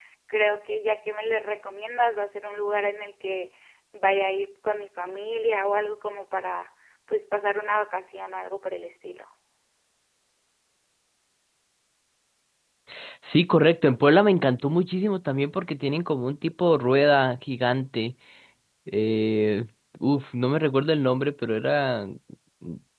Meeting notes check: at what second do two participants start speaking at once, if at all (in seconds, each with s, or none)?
none